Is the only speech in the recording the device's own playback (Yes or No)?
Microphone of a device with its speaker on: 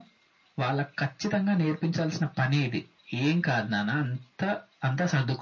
Yes